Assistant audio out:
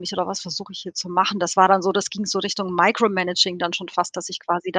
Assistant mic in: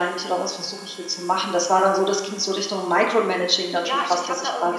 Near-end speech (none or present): present